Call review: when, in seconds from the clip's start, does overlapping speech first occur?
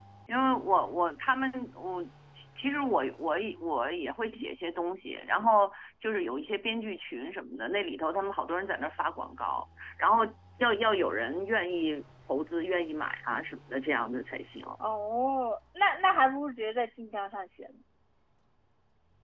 none

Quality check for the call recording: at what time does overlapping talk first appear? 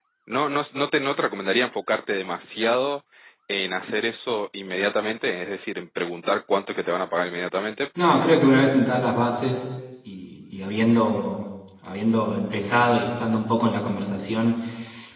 none

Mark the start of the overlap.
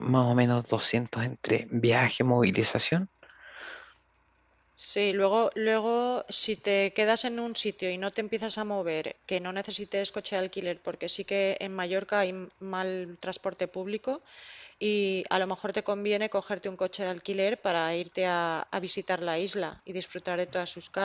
none

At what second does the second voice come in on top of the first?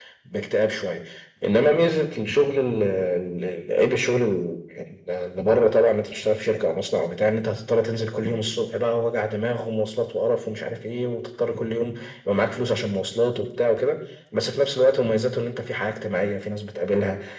none

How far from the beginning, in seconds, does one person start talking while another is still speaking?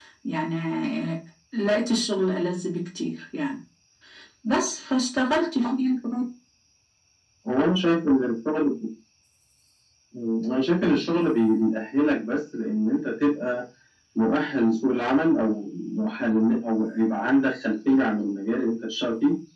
none

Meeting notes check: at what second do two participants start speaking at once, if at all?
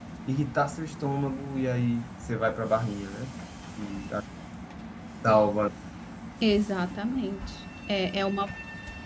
none

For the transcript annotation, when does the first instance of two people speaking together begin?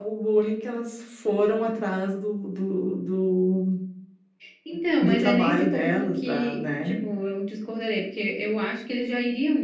5.0 s

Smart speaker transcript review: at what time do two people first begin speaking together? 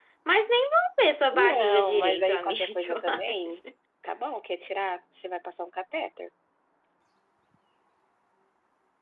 1.3 s

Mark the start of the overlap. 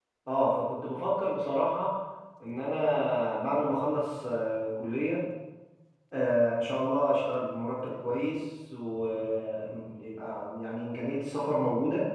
none

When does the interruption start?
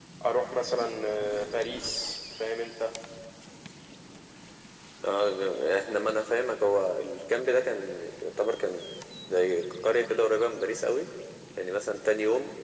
none

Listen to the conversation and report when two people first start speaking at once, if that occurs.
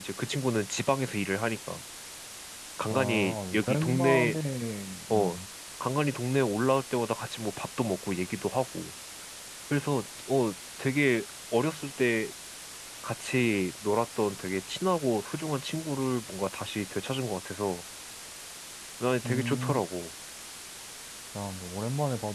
2.9 s

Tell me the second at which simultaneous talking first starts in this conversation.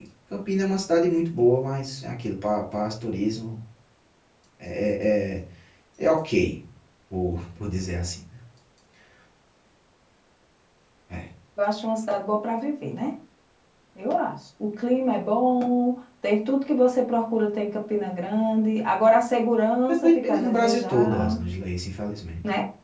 19.9 s

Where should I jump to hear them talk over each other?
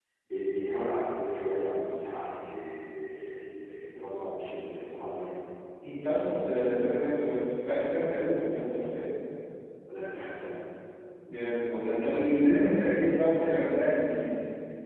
none

